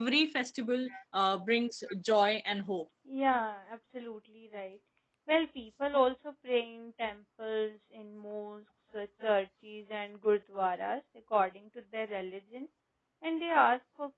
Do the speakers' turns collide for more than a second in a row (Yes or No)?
No